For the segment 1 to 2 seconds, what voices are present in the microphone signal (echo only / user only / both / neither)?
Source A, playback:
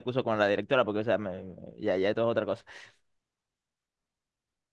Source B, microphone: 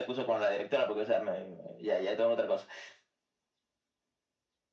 echo only